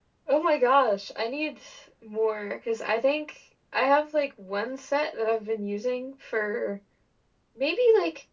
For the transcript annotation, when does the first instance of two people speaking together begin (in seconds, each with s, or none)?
none